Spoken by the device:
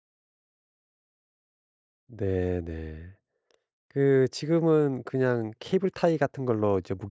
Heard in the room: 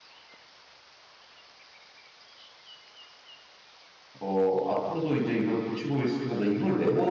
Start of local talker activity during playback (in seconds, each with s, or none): 4.2 s